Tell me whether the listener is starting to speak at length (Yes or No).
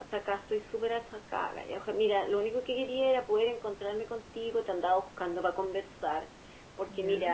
No